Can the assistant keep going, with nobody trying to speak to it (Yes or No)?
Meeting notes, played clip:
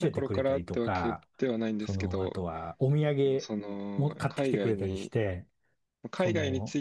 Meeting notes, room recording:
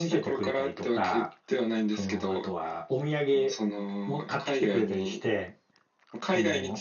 Yes